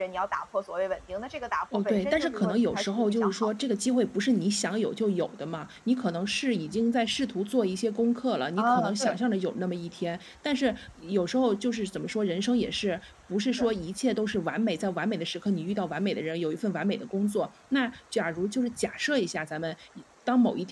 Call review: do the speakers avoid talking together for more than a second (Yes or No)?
No